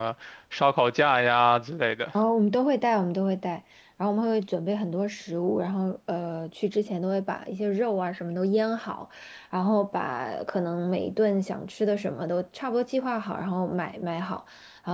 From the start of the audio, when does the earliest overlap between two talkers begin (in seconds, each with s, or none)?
none